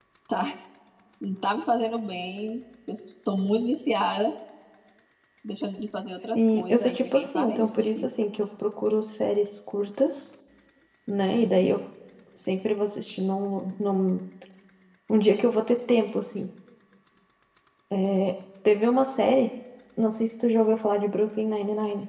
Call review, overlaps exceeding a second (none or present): present